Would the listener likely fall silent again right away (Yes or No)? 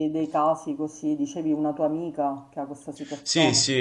No